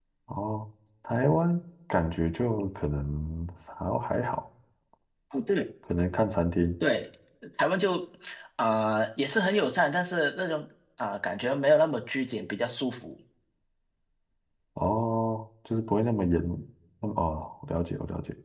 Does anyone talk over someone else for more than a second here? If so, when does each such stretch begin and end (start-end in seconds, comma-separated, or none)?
none